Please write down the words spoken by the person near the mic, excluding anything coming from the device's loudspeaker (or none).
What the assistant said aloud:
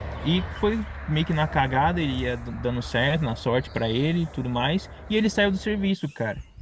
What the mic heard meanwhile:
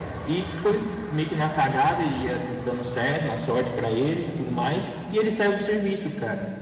none